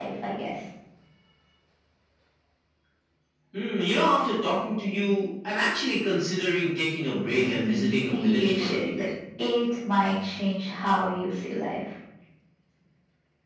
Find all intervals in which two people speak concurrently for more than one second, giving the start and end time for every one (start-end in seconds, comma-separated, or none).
7.3-8.8